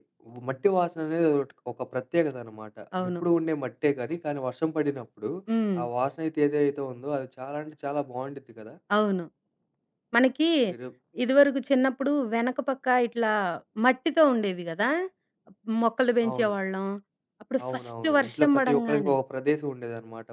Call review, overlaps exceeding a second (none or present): present